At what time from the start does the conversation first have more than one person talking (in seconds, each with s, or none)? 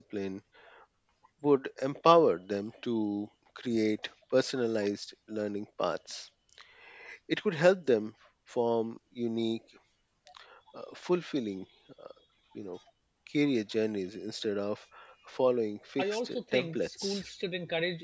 16.0 s